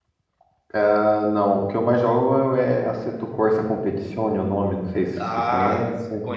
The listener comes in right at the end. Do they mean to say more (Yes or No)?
Yes